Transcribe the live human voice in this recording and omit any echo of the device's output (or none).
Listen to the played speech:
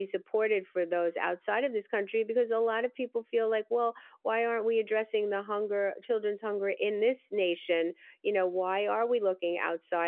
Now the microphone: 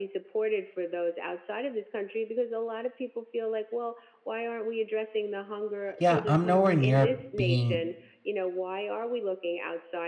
Yeah, I'm nowhere near being